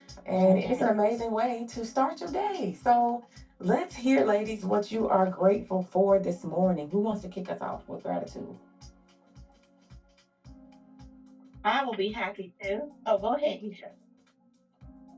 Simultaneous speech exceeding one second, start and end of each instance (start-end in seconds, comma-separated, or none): none